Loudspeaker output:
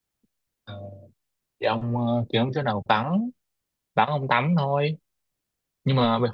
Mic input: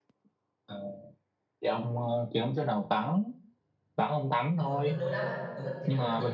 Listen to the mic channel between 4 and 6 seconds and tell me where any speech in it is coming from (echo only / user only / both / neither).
both